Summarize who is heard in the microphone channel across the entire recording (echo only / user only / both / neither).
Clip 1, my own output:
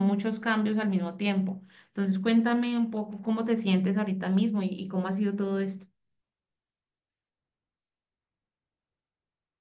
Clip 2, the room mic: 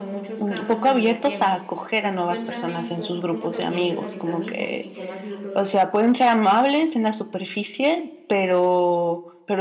both